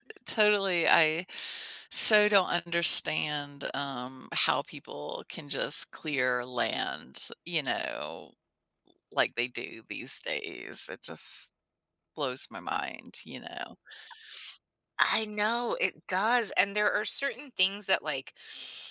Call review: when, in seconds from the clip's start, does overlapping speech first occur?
none

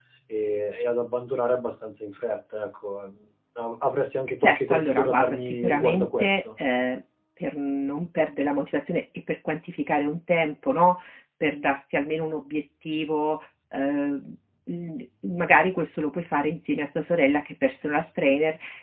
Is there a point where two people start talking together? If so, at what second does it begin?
4.4 s

